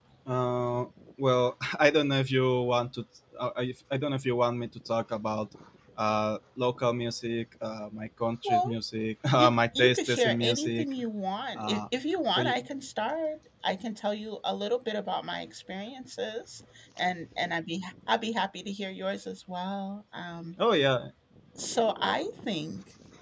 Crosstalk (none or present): present